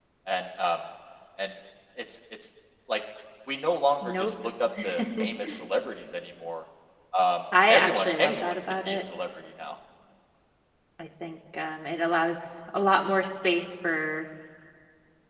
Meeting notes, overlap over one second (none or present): present